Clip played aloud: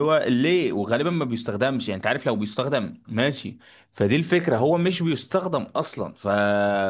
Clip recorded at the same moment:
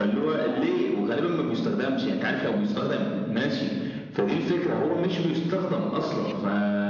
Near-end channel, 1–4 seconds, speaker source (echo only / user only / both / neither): echo only